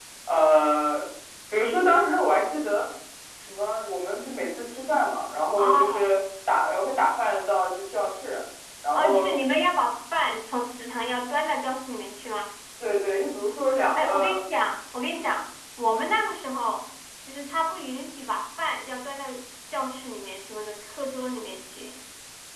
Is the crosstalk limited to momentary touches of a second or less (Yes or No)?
Yes